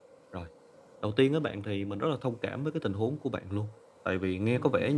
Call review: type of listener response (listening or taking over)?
listening